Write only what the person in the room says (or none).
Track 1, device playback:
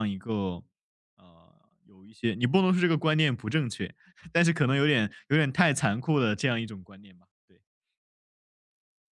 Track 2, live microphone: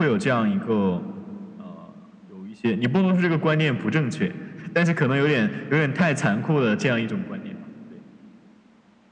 none